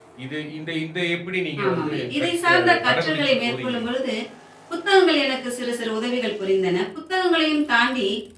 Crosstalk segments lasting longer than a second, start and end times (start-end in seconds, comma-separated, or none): 1.6-3.8